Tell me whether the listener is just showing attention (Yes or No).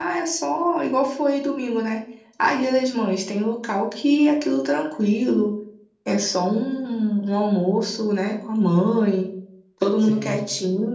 Yes